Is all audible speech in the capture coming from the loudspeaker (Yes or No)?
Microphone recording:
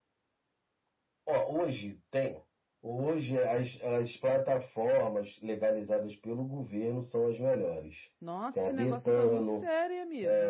No